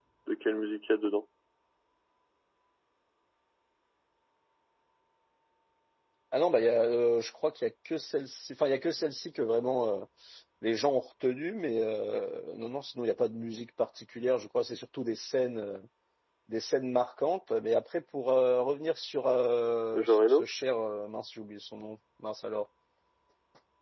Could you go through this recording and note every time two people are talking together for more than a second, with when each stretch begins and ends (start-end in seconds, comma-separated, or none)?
none